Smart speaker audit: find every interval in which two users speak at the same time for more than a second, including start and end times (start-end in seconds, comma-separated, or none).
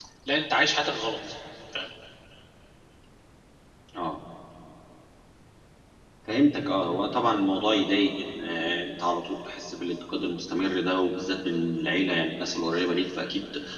none